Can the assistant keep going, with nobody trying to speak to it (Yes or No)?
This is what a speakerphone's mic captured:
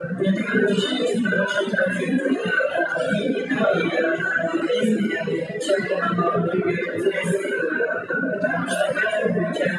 Yes